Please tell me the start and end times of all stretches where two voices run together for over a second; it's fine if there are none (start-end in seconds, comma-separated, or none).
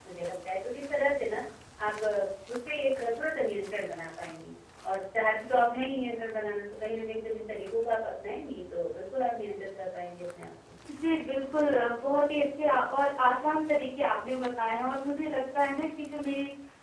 none